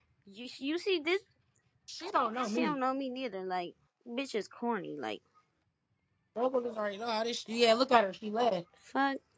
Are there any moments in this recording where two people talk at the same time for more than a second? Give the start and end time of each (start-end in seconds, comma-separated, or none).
none